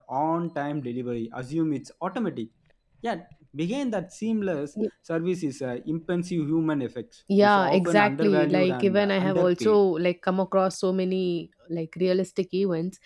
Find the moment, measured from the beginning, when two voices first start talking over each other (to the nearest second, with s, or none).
7 s